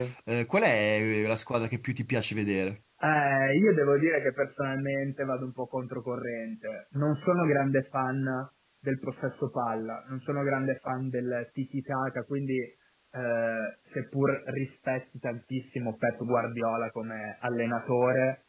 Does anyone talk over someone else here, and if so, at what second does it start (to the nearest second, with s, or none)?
none